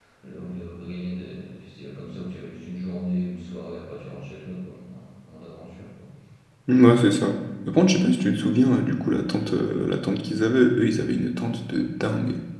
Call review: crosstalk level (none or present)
none